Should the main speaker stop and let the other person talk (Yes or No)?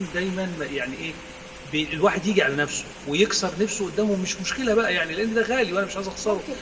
Yes